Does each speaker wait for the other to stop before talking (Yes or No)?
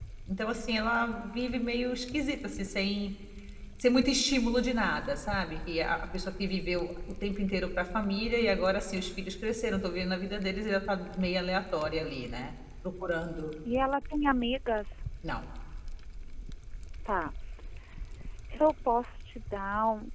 Yes